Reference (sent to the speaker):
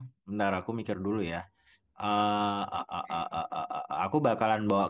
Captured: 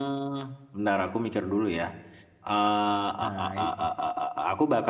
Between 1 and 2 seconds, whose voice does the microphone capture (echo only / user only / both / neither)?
echo only